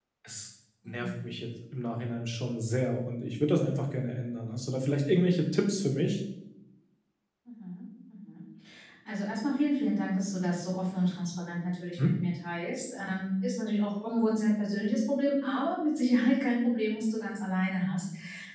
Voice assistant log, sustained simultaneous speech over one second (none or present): none